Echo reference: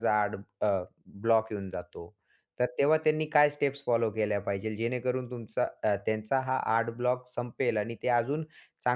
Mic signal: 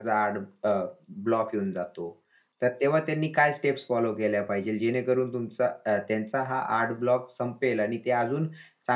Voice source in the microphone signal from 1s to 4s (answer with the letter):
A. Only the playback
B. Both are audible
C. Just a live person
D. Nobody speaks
A